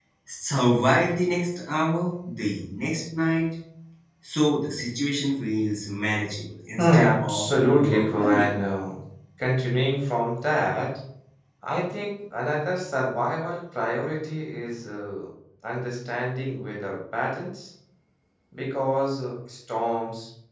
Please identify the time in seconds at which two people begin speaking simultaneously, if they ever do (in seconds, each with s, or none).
6.8 s